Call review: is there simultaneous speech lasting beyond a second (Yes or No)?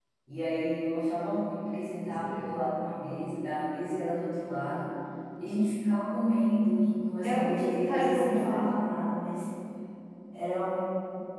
Yes